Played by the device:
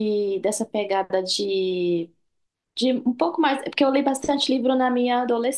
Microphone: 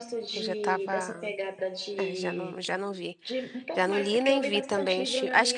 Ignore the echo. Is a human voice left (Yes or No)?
Yes